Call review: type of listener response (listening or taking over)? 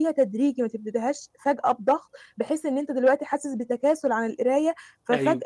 listening